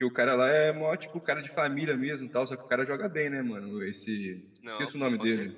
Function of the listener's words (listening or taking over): taking over